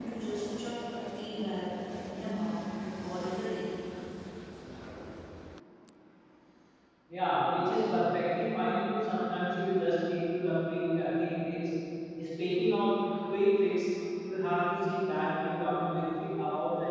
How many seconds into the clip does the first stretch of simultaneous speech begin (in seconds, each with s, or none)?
none